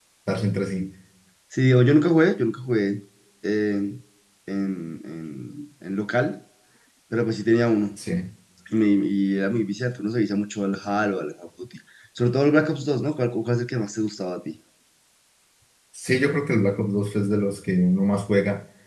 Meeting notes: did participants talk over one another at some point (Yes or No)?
No